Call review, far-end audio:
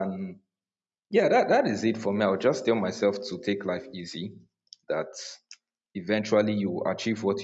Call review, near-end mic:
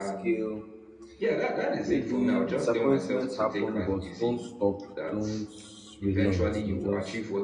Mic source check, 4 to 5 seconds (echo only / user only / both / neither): both